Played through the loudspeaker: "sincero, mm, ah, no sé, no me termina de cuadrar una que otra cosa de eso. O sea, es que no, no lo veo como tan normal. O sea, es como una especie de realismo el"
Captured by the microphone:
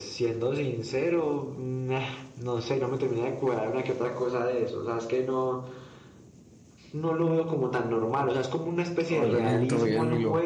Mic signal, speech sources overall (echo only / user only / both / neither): both